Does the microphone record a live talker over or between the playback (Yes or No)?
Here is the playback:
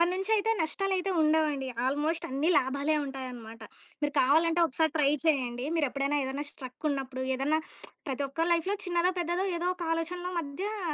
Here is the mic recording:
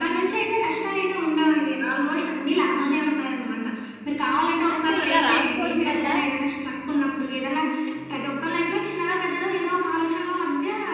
Yes